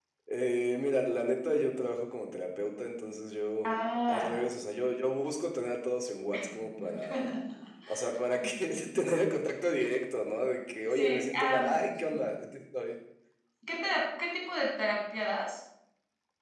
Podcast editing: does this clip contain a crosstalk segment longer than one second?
Yes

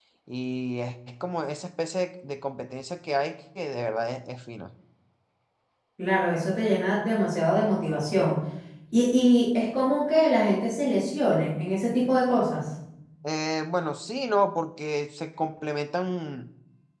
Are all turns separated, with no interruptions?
Yes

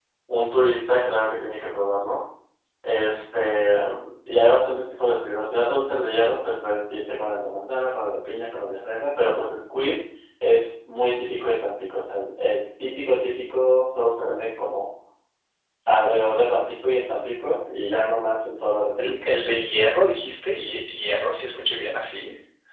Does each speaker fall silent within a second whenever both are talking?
Yes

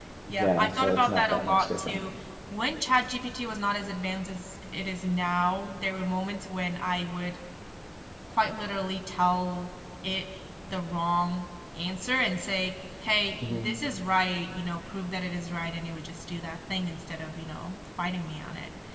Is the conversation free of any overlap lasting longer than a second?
No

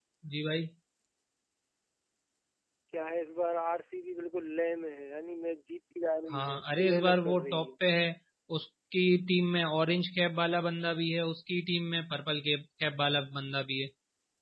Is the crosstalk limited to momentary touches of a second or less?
No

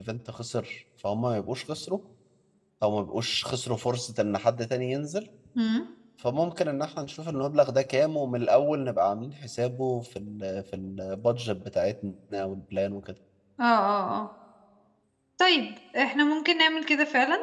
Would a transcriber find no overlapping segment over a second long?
Yes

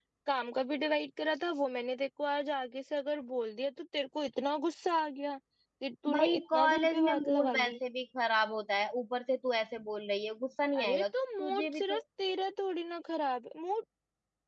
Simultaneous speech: Yes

